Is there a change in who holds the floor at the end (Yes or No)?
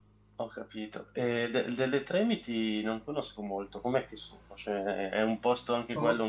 No